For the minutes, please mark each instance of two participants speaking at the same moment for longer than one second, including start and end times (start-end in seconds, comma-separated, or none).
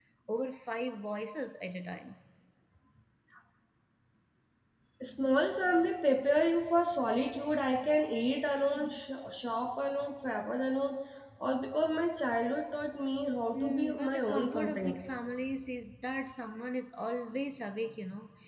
13.5-15.0